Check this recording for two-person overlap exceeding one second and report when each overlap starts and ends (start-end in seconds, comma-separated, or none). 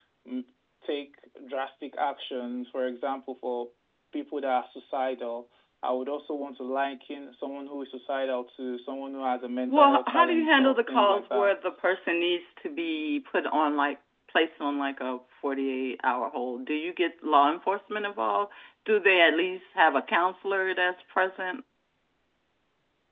9.7-11.5